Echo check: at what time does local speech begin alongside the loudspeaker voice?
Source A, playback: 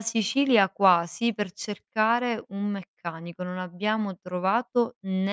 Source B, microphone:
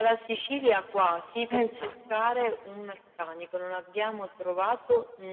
1 s

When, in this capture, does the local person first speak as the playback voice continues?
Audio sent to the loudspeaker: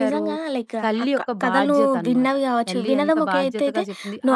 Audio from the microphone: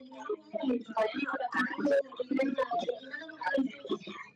none

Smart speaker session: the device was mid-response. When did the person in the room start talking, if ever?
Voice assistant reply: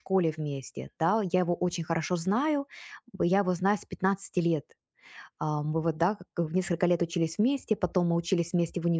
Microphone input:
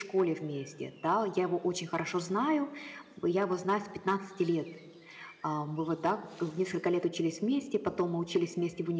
none

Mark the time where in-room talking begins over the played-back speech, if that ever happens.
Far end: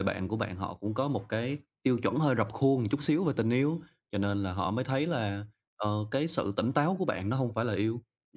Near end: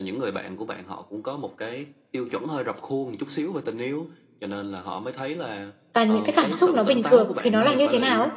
6 s

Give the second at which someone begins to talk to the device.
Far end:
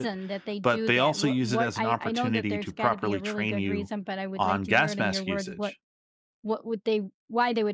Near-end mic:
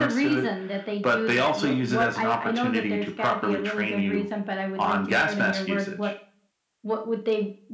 none

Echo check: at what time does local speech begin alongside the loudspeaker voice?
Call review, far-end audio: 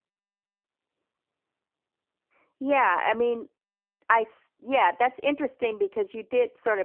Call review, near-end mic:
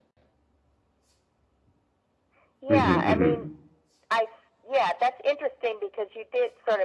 3 s

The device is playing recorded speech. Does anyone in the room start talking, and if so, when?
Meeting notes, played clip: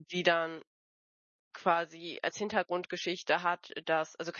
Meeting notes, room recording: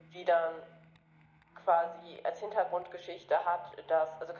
none

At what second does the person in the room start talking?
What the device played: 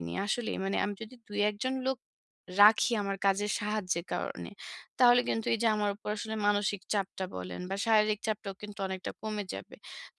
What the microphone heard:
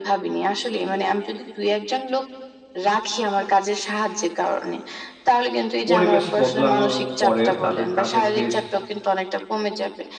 6 s

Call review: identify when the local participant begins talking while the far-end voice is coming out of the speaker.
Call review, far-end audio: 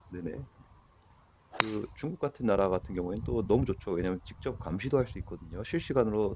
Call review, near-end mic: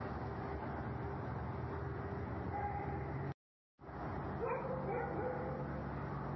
none

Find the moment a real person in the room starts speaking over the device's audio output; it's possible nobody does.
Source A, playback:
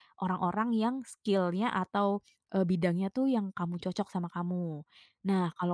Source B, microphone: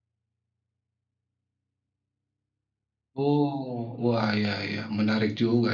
3 s

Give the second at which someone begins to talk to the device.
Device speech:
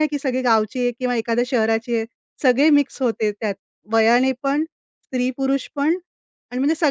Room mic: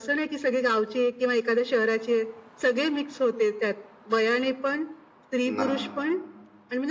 6 s

